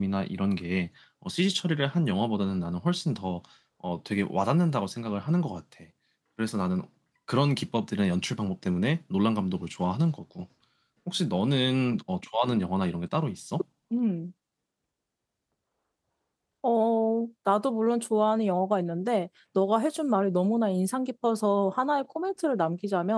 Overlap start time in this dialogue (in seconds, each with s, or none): none